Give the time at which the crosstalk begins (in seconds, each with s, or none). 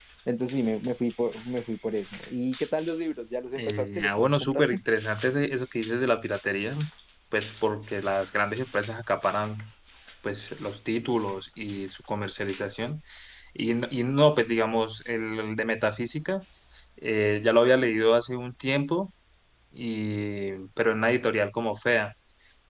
3.5 s